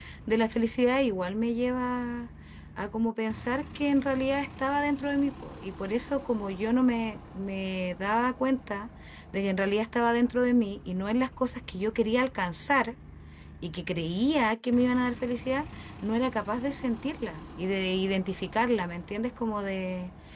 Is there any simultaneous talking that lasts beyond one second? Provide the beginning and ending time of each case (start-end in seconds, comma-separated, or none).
none